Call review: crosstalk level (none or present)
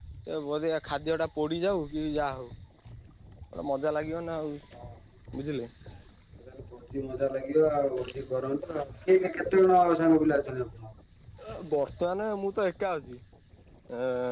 none